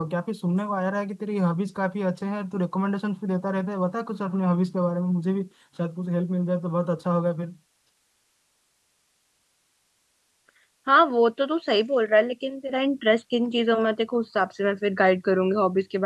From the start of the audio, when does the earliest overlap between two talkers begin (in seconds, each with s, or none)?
none